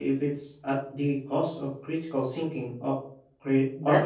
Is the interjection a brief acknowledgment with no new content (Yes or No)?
No